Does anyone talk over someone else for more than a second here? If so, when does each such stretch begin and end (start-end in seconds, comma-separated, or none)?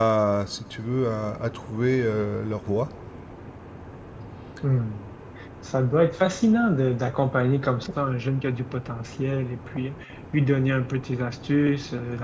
none